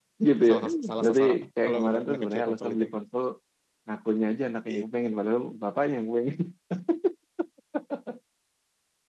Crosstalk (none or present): present